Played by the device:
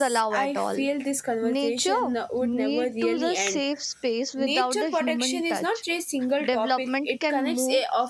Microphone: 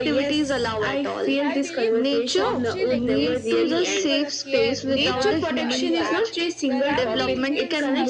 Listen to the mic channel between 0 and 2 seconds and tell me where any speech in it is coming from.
both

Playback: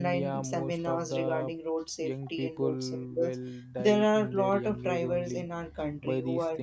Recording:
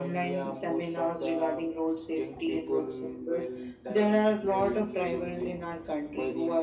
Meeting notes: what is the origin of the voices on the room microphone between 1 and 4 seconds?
echo only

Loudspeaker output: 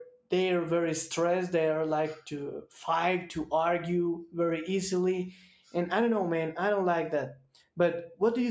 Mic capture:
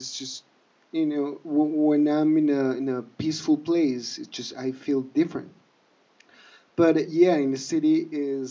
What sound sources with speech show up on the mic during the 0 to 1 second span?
user only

